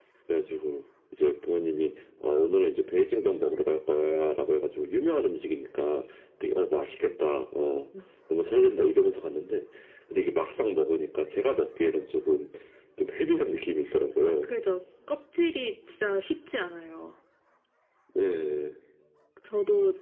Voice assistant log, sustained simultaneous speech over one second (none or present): none